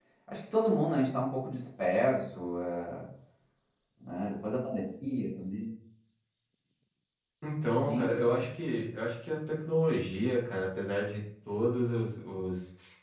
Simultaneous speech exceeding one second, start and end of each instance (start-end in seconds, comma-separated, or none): none